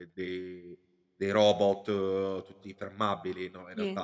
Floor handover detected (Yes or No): No